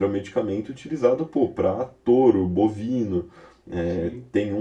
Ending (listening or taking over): listening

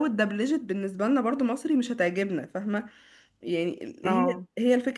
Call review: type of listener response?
listening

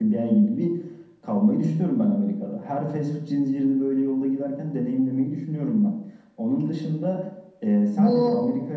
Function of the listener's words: listening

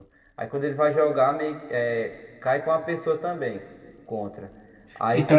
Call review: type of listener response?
listening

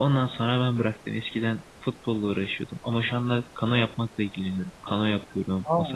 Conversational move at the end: listening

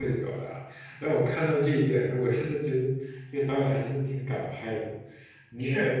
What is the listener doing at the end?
taking over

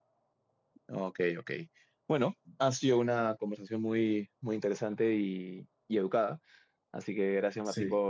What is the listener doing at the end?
listening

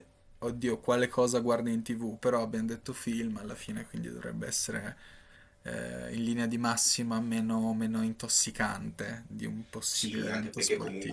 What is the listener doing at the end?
taking over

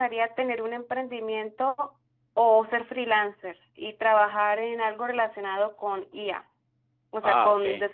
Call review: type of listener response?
listening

